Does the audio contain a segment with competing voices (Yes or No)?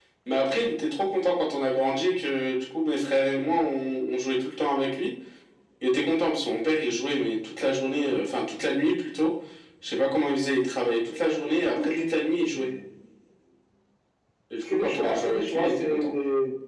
Yes